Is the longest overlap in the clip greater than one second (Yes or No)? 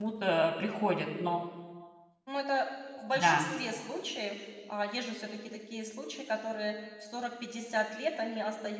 No